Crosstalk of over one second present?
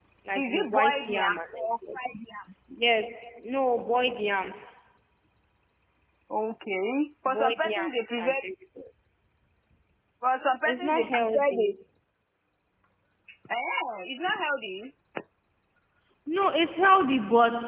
Yes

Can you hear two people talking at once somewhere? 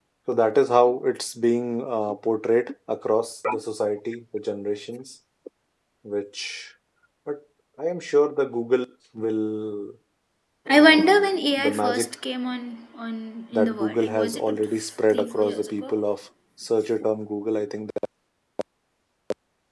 Yes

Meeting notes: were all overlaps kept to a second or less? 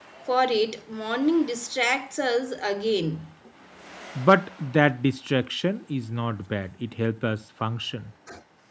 Yes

